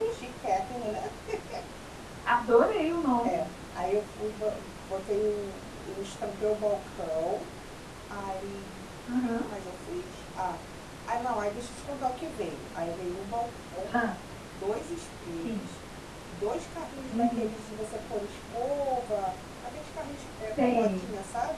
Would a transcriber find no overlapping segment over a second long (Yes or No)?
Yes